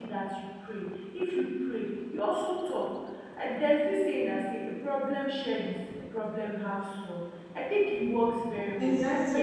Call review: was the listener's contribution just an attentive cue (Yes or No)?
No